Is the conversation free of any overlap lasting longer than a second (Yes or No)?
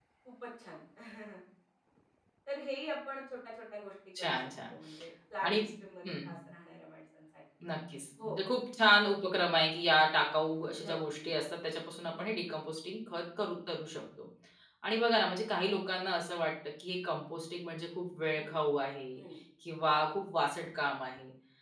Yes